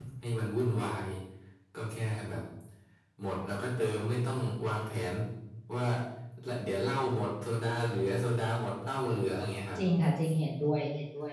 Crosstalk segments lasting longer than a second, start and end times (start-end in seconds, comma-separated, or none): none